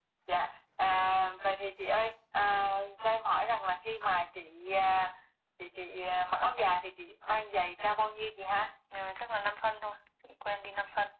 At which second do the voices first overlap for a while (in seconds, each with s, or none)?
none